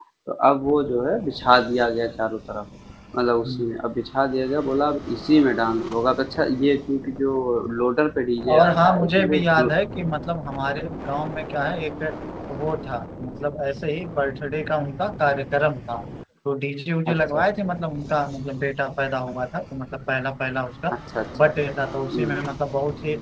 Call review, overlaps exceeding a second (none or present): present